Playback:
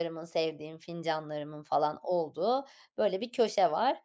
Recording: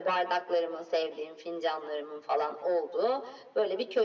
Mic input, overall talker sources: echo only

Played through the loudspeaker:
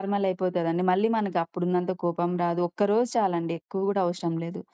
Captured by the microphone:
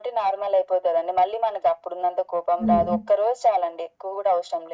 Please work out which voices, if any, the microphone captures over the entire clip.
both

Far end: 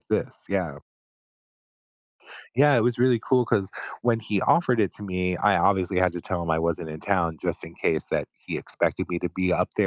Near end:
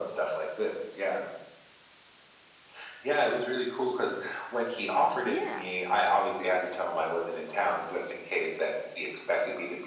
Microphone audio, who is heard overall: both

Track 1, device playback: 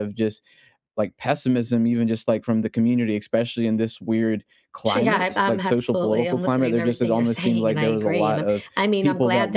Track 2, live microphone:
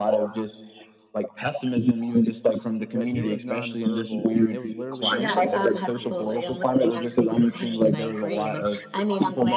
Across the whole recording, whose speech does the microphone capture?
both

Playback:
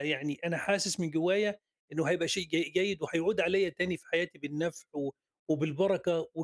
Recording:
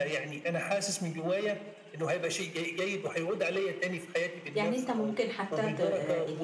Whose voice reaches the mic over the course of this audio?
both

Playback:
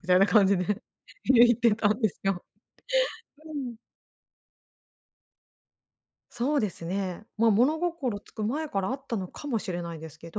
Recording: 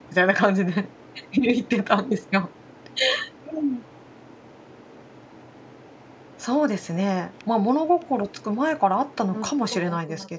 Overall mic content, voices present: both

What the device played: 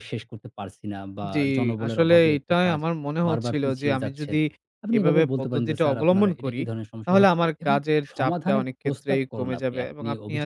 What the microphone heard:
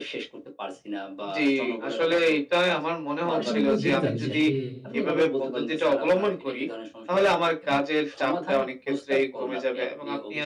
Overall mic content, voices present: both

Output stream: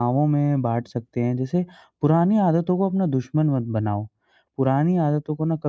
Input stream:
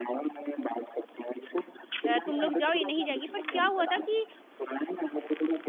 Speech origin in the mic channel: both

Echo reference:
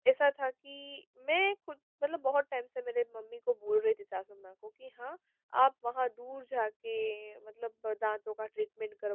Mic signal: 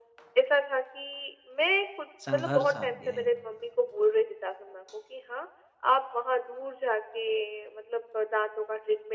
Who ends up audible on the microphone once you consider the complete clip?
both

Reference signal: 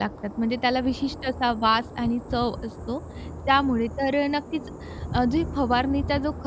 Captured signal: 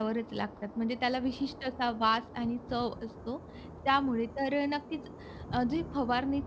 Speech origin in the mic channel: echo only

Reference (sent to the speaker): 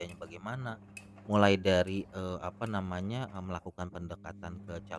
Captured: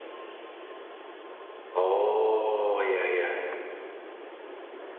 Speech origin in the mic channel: user only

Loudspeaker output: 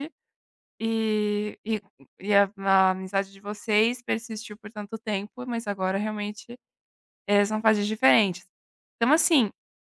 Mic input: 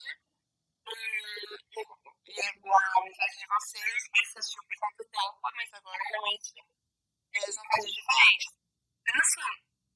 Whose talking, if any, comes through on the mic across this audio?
echo only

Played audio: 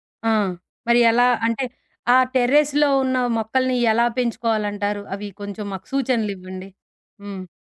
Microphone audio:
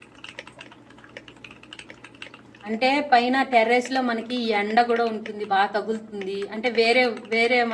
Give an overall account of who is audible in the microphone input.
user only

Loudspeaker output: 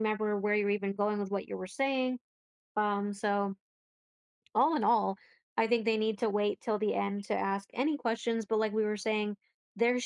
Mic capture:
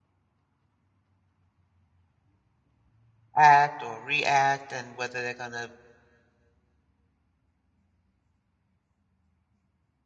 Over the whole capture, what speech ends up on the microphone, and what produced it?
user only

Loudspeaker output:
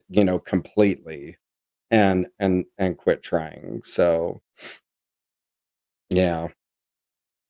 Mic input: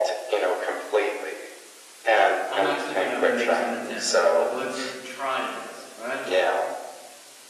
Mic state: both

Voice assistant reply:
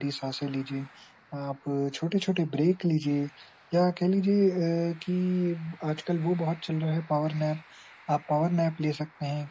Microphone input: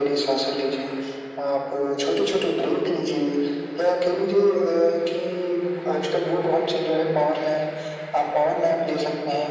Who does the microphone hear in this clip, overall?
echo only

